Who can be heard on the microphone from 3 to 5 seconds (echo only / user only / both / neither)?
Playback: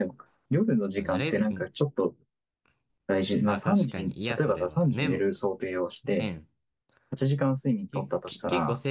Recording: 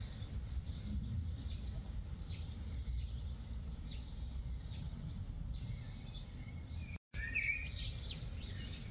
neither